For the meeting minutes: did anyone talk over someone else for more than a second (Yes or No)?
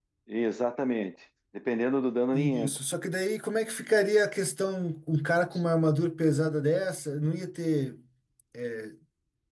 No